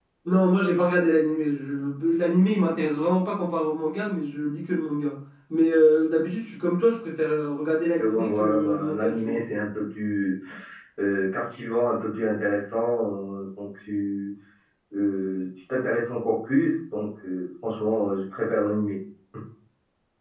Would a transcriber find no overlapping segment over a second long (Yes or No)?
No